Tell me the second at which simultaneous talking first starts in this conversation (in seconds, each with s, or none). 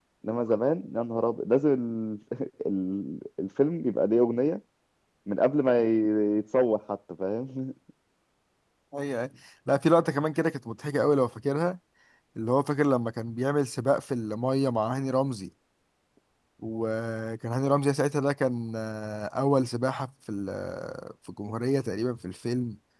none